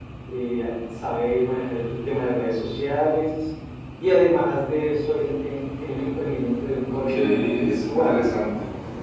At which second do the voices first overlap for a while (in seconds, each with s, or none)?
7.1 s